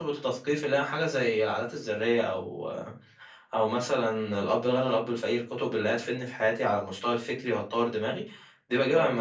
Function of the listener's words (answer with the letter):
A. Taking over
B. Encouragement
B